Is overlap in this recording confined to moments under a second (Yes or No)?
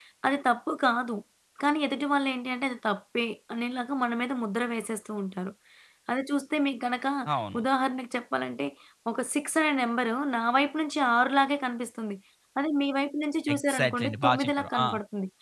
No